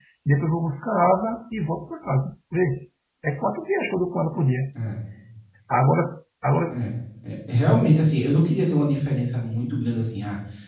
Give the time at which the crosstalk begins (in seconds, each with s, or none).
none